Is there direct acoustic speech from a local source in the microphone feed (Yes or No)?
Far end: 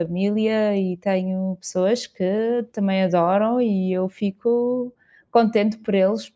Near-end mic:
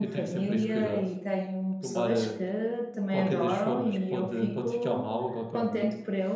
Yes